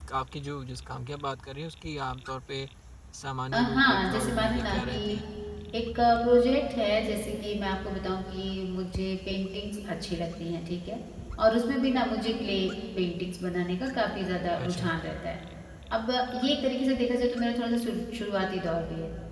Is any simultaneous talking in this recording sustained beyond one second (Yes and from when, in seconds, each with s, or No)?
Yes, from 3.5 s